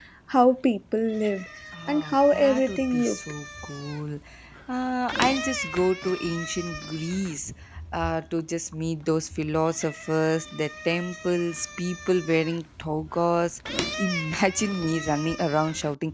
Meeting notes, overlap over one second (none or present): present